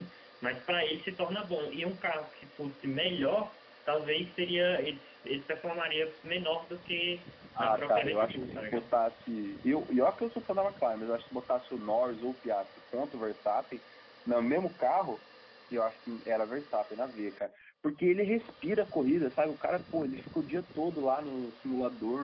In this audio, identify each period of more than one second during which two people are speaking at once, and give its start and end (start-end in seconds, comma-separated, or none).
7.6-8.9